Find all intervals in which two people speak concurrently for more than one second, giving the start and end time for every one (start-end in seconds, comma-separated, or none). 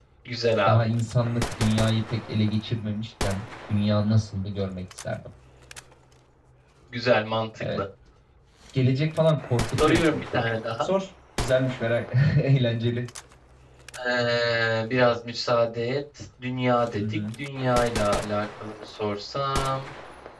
none